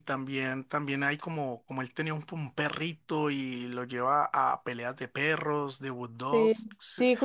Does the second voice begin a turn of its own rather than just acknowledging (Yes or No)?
Yes